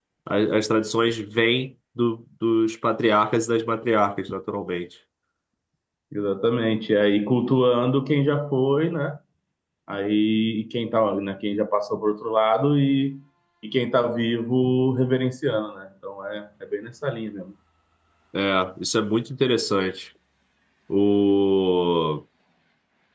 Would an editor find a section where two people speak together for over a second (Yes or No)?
No